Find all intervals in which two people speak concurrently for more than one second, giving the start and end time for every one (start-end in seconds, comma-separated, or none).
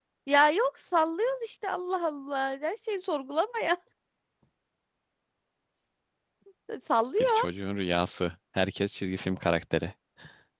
none